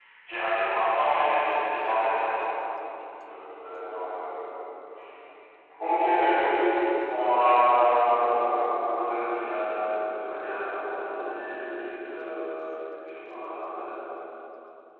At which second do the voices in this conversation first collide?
1.1 s

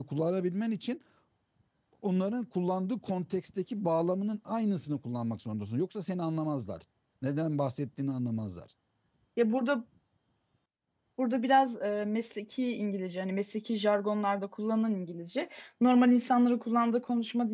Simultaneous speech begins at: none

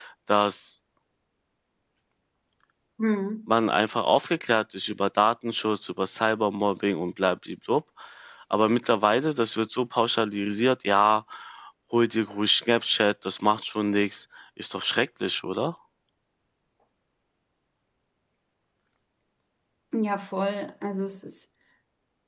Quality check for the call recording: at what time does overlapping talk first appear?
none

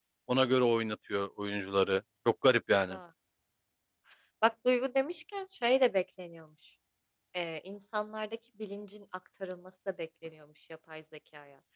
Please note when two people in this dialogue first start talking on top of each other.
none

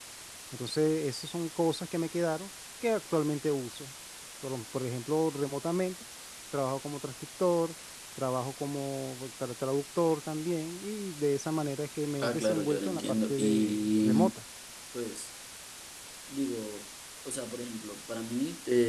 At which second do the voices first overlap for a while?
12.2 s

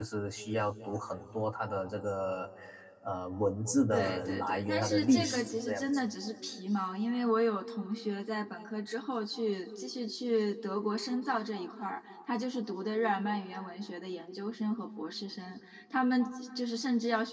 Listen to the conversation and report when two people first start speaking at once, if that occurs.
3.9 s

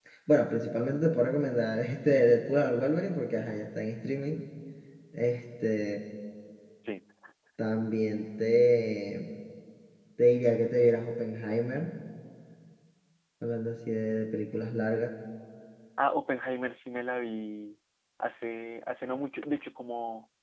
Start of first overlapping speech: none

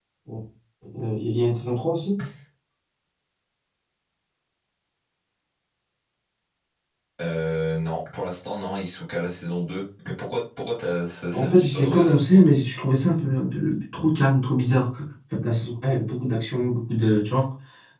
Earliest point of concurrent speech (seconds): 11.3 s

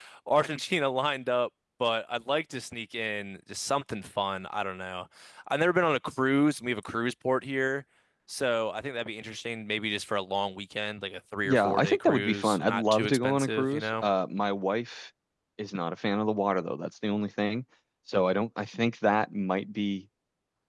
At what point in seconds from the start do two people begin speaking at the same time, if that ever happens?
11.4 s

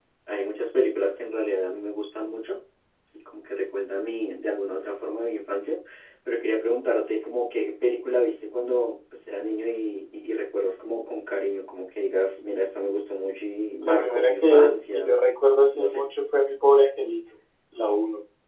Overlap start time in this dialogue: 13.8 s

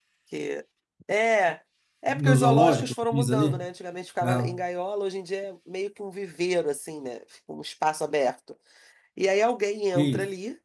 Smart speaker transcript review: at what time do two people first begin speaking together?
2.1 s

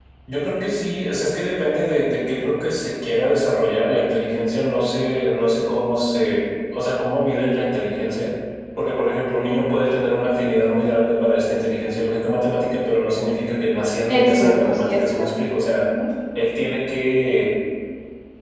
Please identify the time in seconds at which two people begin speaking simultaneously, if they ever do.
14.1 s

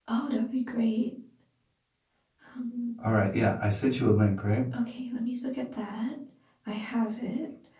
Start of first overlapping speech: none

